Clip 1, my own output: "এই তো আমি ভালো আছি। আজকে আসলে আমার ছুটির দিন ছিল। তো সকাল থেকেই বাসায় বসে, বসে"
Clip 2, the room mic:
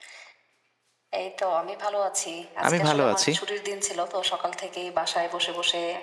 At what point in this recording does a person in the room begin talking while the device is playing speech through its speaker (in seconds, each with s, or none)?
2.7 s